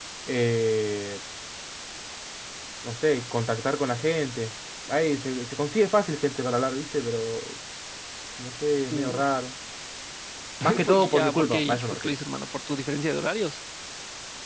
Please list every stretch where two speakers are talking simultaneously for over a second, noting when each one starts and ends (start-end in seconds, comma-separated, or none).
10.8-12.1